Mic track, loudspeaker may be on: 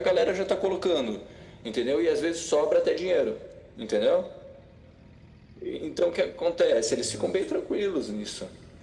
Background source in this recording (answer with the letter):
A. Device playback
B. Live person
B